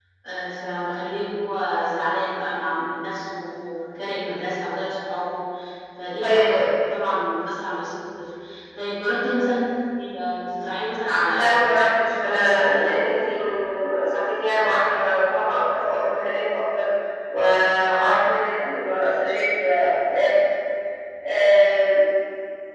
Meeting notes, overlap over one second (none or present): present